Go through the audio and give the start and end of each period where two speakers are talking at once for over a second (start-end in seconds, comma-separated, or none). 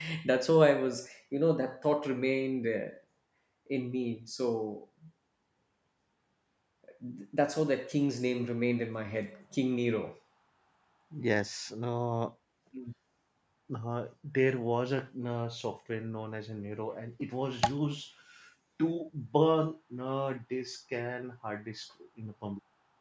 none